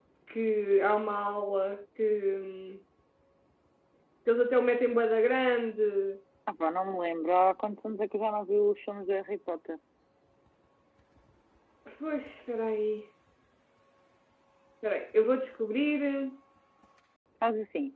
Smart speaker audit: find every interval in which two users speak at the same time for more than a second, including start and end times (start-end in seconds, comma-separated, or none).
none